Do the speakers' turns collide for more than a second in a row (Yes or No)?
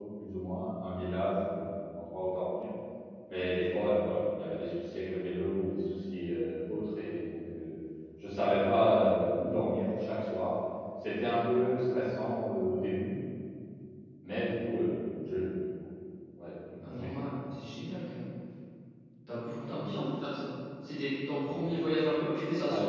No